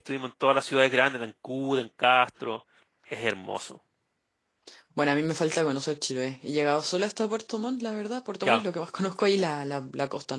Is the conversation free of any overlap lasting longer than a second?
Yes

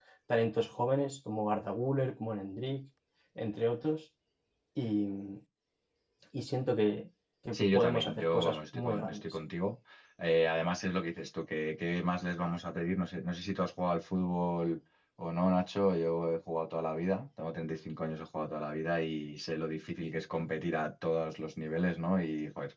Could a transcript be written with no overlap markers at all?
No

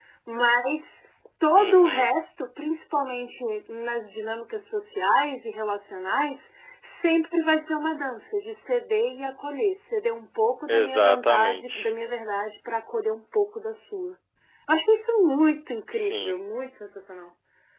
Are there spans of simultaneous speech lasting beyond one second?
Yes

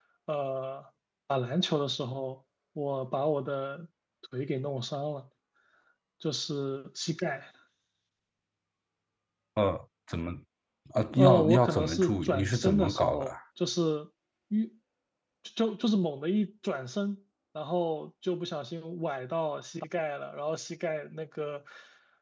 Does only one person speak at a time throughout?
No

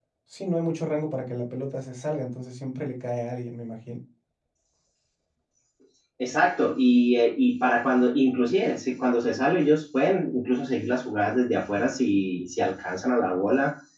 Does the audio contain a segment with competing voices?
No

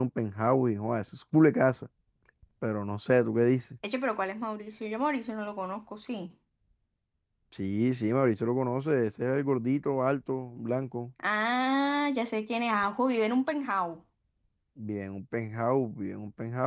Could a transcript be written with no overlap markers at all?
Yes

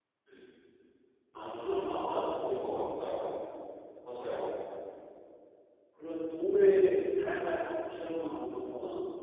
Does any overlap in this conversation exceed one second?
Yes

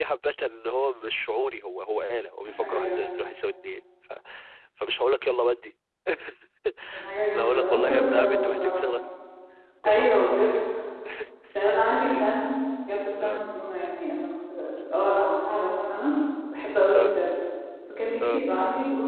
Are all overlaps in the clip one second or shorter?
No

